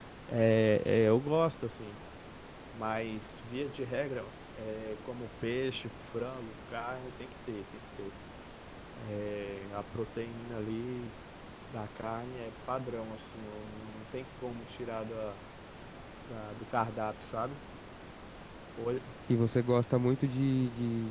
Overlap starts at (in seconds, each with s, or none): none